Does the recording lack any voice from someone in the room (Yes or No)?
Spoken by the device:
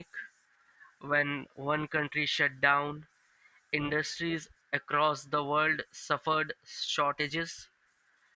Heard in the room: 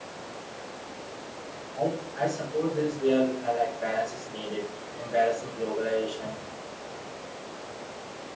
No